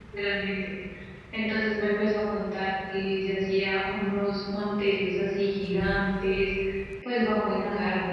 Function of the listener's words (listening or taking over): listening